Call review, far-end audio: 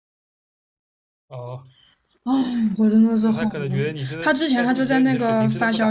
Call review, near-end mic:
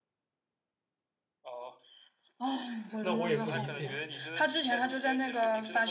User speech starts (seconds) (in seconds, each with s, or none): 3.0 s